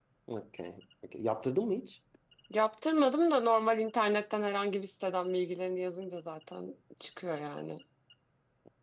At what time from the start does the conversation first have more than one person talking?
none

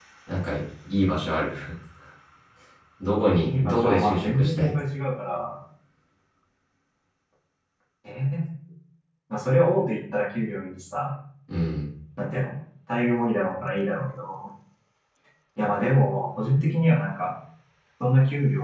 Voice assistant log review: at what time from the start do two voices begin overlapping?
3 s

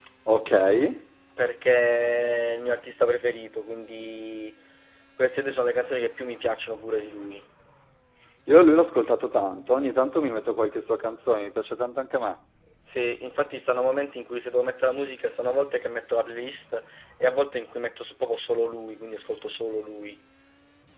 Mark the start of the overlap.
none

